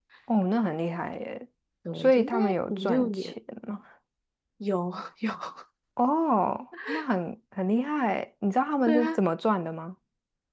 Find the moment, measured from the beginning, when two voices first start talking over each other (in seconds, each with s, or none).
1.9 s